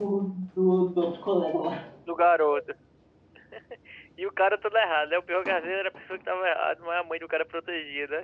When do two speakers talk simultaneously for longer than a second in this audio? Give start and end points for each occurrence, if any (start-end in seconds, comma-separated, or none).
none